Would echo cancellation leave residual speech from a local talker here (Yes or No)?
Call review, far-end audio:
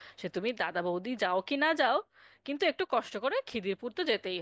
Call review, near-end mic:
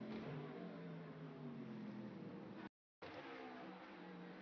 No